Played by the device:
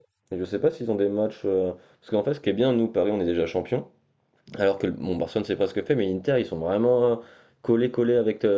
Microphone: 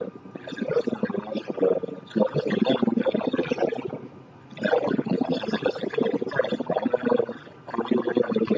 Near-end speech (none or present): none